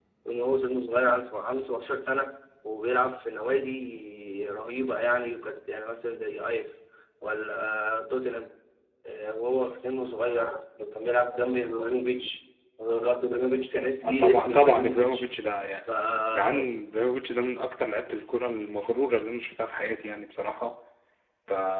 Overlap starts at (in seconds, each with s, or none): 14.0 s